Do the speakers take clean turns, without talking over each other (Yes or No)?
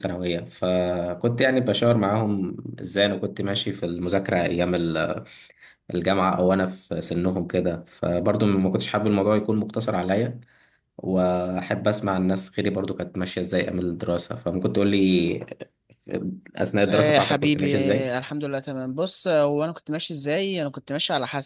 No